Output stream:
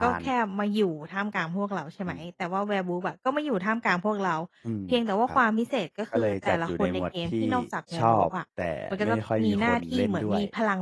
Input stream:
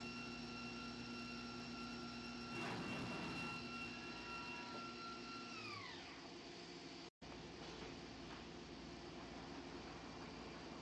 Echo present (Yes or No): No